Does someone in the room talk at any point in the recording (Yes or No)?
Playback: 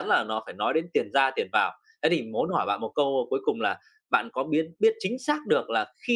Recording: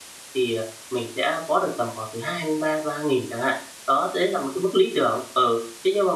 Yes